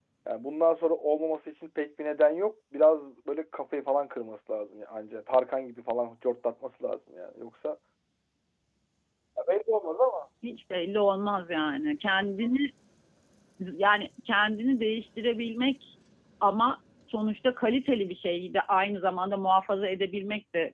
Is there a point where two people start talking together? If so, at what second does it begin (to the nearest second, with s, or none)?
none